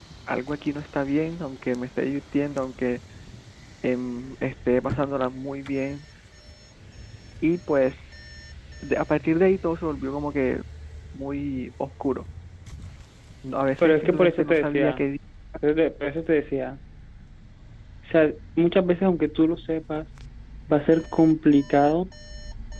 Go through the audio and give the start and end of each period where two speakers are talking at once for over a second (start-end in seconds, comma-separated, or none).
13.8-15.0